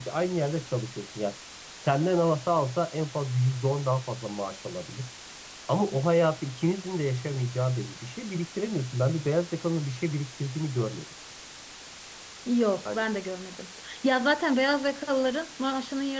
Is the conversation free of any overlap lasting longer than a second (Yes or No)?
Yes